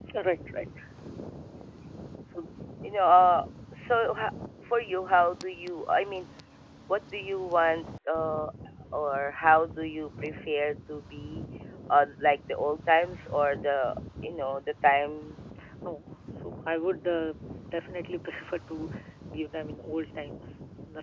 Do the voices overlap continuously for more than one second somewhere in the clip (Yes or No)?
No